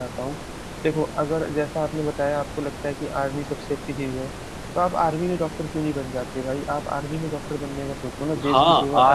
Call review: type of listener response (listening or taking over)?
taking over